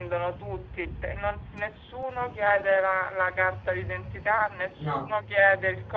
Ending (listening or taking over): listening